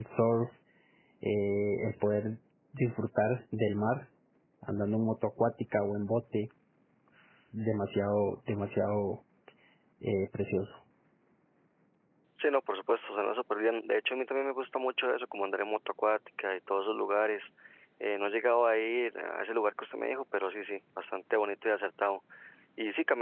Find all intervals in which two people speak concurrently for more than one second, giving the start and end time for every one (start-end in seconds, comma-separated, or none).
none